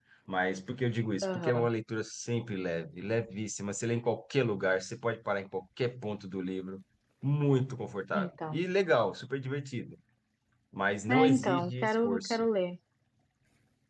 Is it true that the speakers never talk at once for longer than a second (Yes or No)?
No